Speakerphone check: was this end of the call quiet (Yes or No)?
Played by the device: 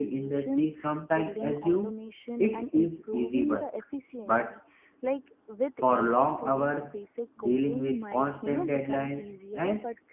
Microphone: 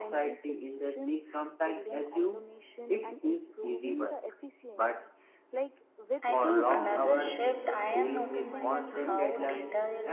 No